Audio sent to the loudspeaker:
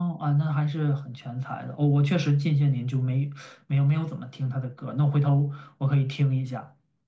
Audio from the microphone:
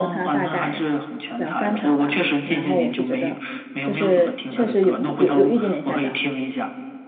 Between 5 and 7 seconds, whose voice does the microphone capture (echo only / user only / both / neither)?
both